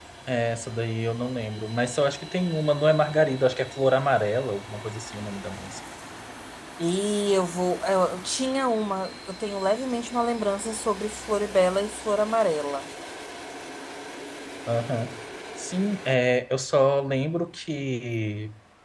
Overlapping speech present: No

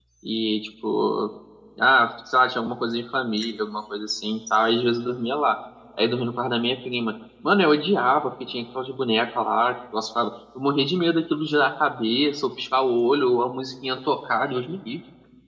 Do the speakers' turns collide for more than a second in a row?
No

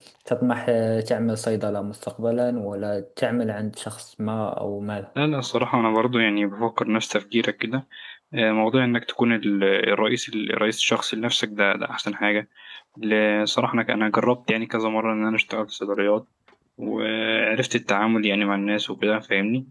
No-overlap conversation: Yes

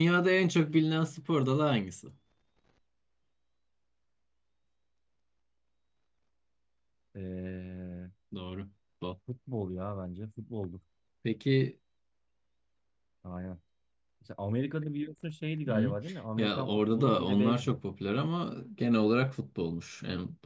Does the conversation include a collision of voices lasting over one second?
Yes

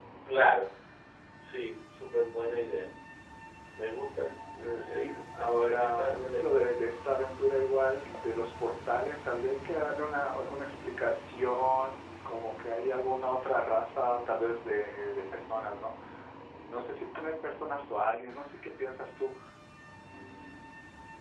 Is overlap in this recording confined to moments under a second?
No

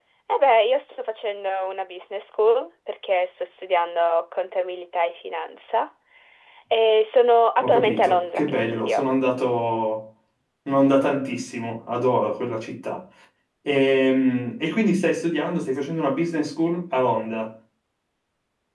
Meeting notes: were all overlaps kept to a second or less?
No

